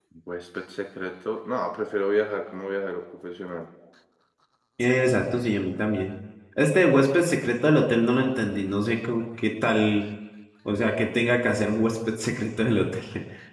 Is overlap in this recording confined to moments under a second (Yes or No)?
Yes